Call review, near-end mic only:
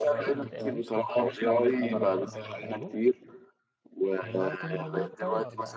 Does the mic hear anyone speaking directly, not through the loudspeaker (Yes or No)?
Yes